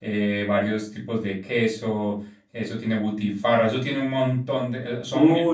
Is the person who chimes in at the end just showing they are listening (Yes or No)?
No